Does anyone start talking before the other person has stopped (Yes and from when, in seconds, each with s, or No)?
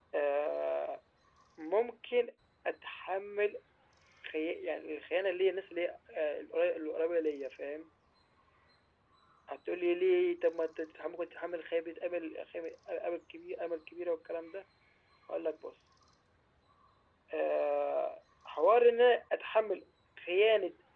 No